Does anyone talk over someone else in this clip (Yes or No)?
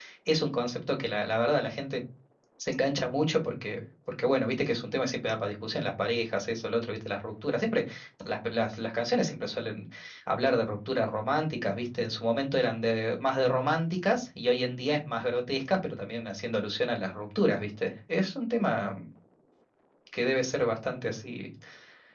No